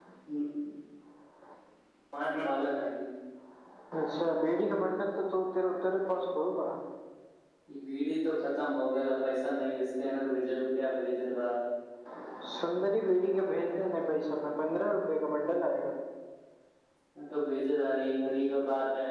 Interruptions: none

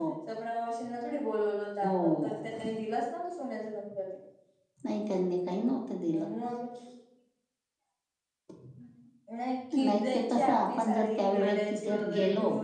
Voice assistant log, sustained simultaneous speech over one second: present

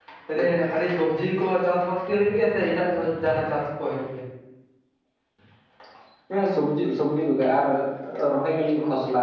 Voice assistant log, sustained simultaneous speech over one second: none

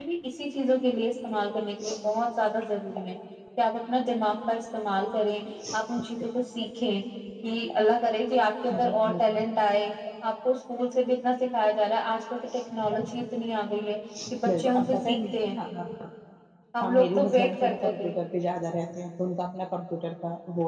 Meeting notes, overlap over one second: present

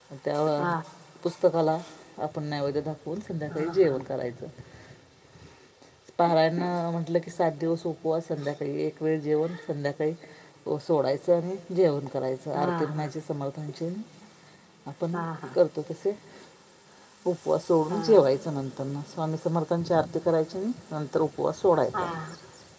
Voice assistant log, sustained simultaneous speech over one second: none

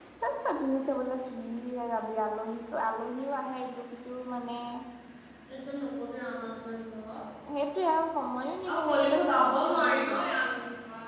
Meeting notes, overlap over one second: present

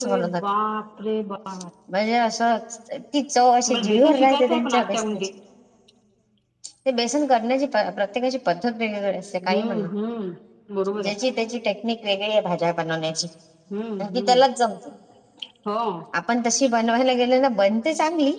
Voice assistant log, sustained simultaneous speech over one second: present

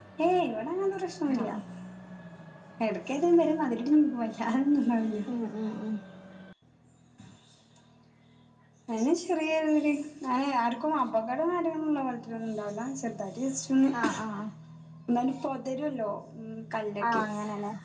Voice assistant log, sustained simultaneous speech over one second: none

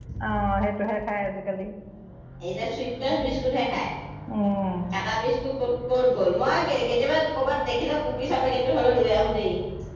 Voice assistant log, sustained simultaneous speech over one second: none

